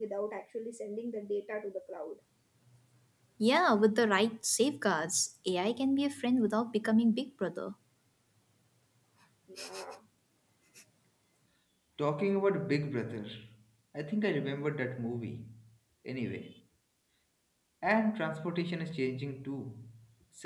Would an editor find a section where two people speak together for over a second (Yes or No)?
No